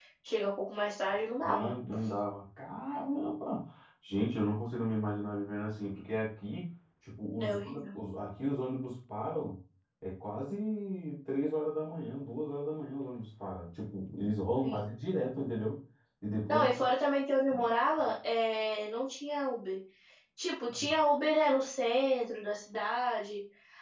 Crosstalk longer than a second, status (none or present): none